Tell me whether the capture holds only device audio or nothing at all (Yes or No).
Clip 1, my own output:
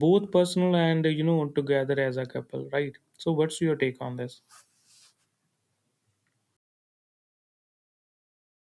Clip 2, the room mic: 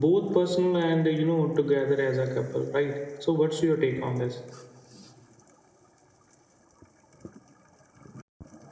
Yes